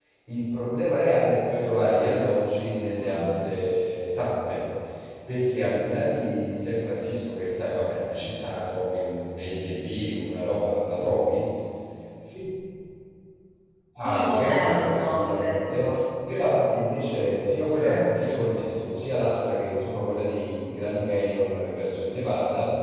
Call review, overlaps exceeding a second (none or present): present